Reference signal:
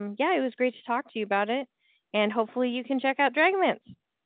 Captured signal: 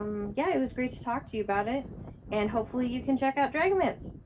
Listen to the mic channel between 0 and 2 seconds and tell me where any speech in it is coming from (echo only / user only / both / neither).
echo only